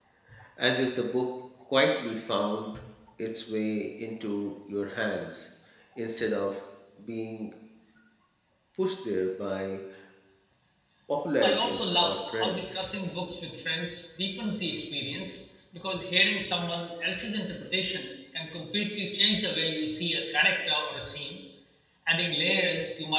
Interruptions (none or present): present